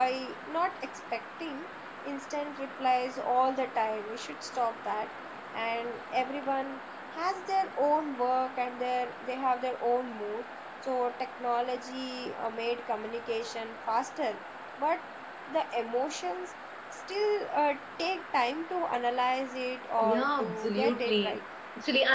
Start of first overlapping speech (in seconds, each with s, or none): 20.0 s